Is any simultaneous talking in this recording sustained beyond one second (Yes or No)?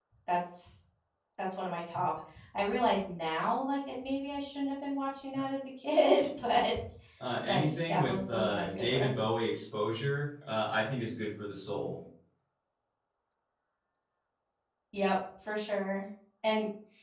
Yes